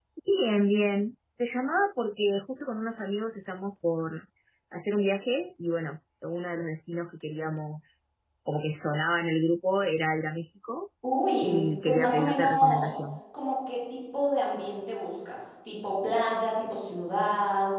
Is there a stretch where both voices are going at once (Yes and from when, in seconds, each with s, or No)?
Yes, from 11.4 s